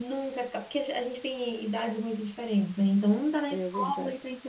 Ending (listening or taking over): listening